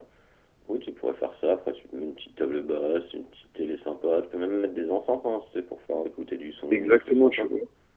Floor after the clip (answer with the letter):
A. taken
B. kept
A